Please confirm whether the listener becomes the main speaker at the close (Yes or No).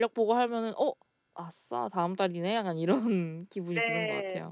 Yes